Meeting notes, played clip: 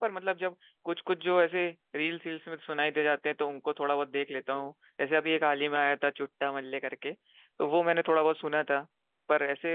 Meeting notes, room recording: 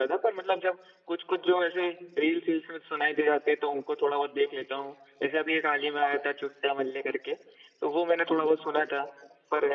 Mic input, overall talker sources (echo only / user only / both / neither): echo only